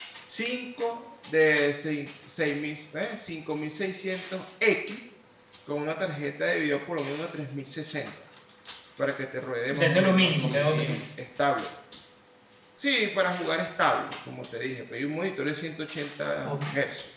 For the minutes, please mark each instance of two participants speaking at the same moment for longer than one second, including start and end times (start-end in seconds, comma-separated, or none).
9.7-11.0